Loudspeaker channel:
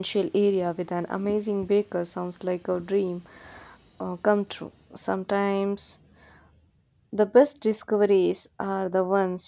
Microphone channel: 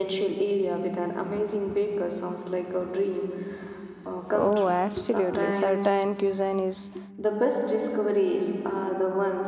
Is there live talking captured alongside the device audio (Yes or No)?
Yes